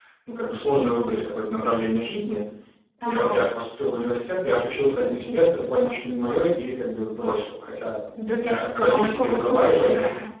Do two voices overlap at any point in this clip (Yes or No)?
Yes